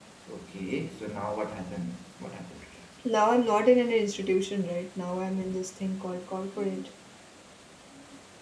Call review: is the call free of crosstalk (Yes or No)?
Yes